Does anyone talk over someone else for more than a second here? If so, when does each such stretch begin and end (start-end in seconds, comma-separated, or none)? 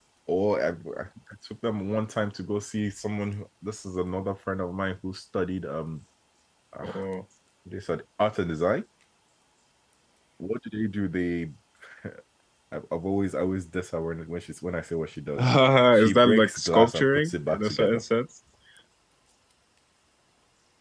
15.9-18.0